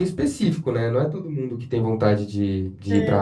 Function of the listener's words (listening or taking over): listening